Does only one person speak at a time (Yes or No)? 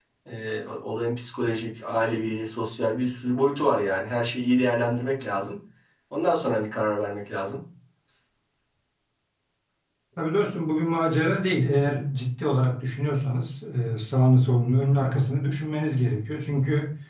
Yes